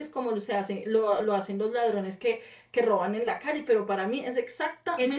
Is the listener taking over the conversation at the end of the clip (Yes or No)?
Yes